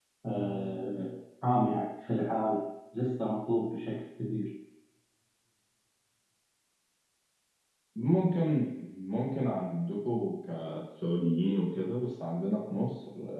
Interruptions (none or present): none